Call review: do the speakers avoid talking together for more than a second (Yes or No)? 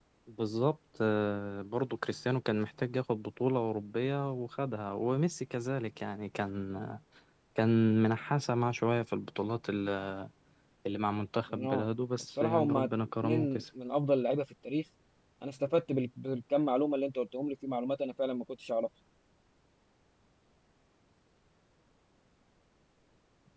No